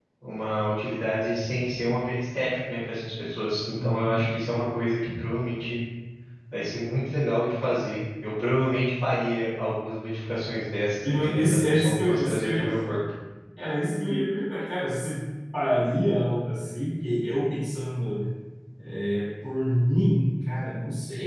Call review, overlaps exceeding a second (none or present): present